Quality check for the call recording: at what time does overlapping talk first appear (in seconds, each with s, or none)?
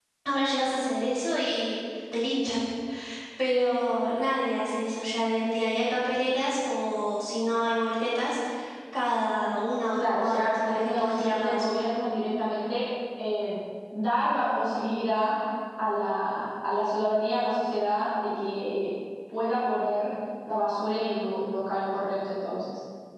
10.0 s